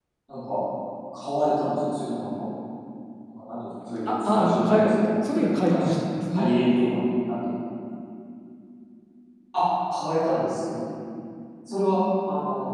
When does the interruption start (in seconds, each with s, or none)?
4.1 s